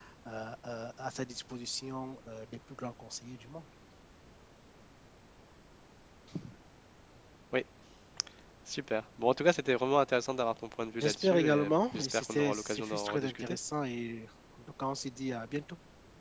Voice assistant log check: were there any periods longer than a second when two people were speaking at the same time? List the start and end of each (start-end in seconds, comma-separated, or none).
11.0-13.6